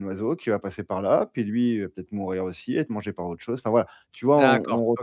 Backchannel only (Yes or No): No